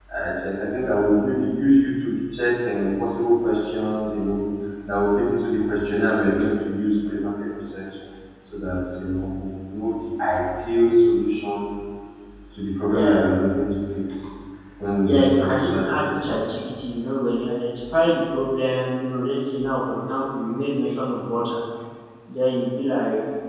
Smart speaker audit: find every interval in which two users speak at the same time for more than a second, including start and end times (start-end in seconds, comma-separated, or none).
15.1-16.4